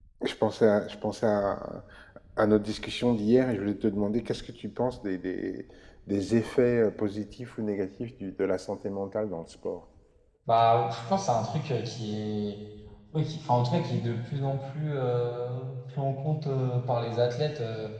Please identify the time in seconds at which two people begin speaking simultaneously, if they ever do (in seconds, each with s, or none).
none